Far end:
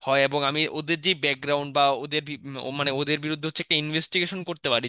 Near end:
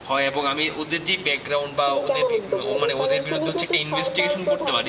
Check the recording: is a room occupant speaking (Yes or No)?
Yes